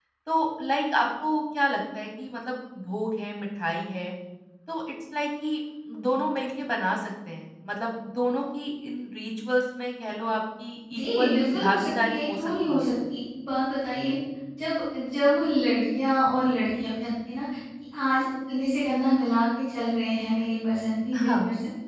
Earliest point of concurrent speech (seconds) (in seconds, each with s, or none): 10.9 s